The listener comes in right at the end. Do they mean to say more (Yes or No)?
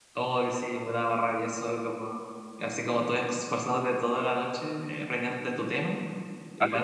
Yes